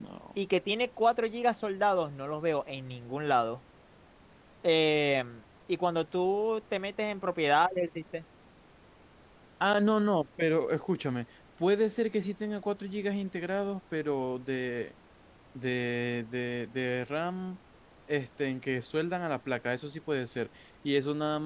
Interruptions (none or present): none